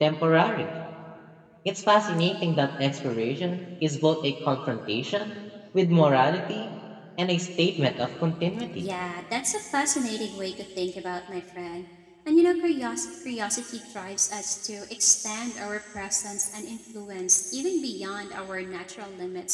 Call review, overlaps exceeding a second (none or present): none